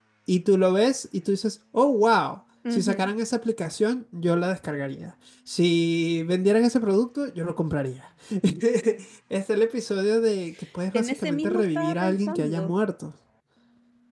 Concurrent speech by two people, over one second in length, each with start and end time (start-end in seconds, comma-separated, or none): 10.9-12.7